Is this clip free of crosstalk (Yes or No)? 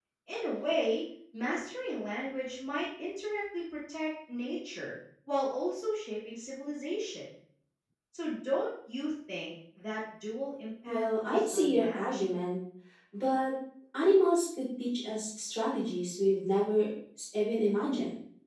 No